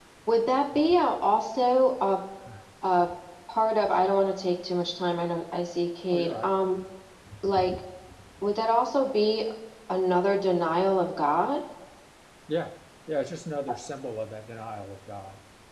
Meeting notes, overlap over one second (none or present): none